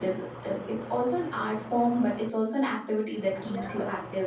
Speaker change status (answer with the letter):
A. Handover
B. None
A